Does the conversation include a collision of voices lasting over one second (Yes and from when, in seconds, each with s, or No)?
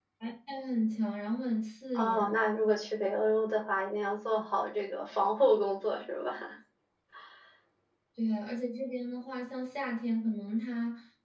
No